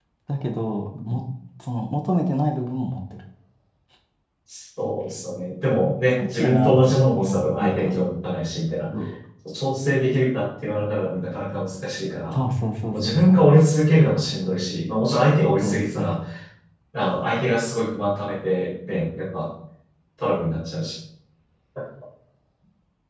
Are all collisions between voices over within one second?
No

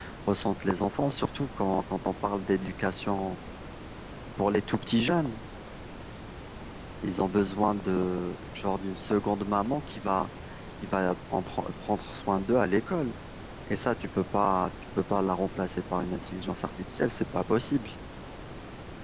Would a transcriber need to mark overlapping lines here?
No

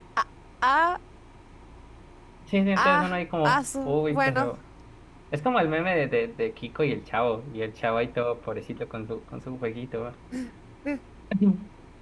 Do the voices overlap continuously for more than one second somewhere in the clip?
Yes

